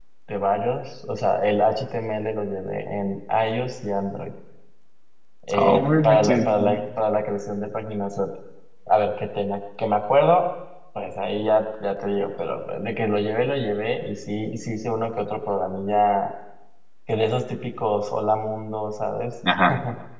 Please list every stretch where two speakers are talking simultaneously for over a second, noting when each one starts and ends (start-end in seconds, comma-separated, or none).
5.5-6.8